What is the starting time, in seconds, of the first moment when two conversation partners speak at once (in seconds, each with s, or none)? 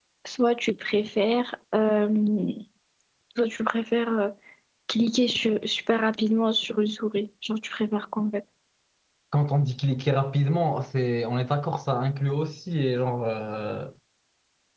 none